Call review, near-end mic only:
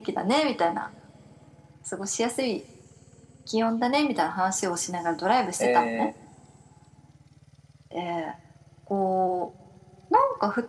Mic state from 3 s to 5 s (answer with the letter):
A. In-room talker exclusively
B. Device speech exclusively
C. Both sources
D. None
B